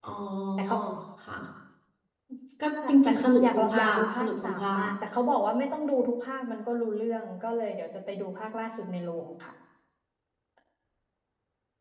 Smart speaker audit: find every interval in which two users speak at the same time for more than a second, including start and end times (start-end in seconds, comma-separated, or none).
3.0-4.9